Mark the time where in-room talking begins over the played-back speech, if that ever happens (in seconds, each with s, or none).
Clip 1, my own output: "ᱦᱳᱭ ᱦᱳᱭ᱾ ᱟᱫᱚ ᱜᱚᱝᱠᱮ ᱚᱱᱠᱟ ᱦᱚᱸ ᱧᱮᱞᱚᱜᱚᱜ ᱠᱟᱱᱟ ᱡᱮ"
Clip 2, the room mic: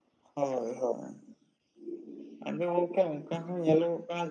none